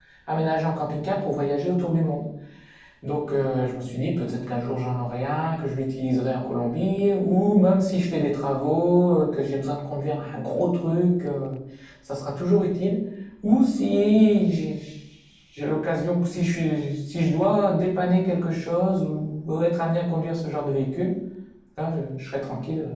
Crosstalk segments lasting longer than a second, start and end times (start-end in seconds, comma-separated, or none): none